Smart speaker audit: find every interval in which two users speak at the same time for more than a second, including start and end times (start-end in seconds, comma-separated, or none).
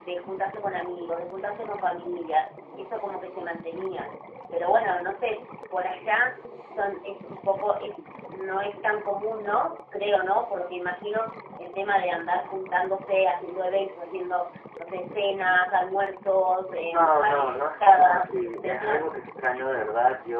16.9-19.0